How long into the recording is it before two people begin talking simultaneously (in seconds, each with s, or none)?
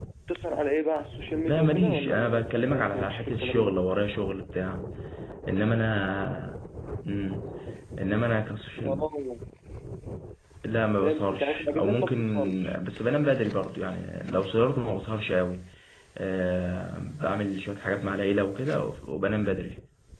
1.5 s